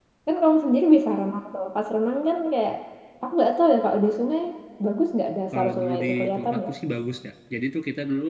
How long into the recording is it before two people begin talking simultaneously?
5.5 s

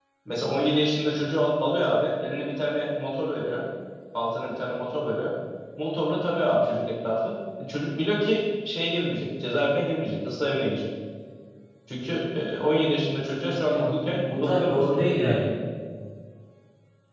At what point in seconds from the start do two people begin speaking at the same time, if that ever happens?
13.6 s

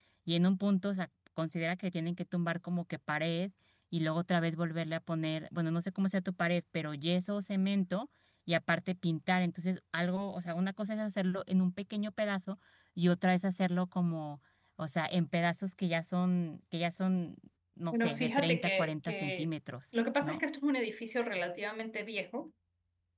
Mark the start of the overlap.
17.9 s

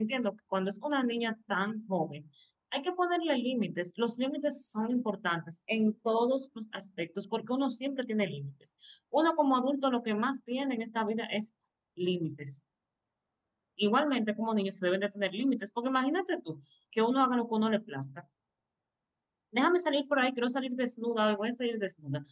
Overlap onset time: none

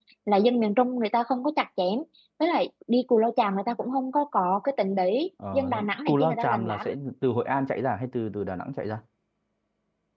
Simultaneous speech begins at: 5.4 s

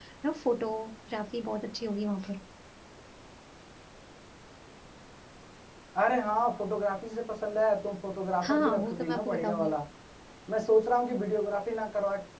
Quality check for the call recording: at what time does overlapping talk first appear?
8.4 s

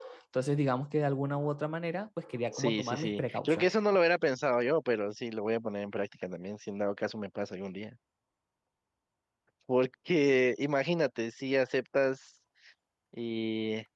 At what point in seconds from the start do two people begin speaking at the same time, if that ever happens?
2.5 s

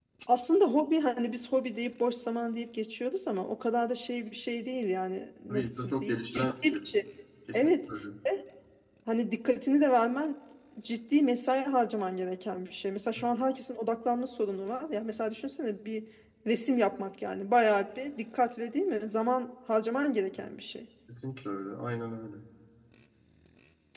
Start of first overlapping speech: 5.5 s

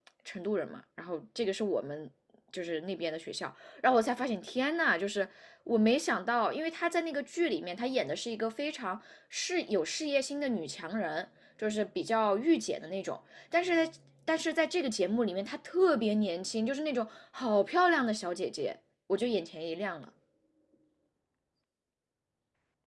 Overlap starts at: none

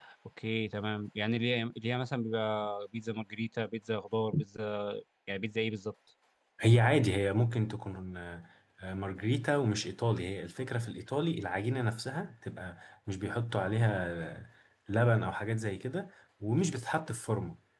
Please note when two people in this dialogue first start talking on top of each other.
none

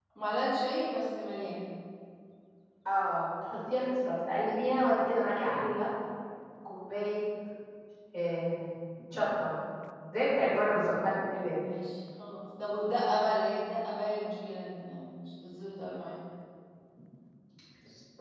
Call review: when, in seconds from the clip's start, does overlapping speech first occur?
none

